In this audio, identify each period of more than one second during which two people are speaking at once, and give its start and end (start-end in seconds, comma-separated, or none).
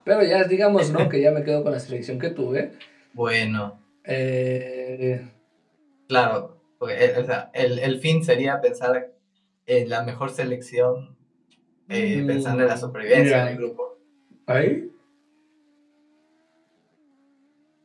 11.9-13.6